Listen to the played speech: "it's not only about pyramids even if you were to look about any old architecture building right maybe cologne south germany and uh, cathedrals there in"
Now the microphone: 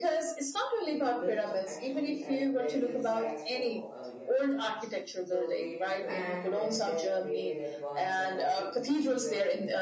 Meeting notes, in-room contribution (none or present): present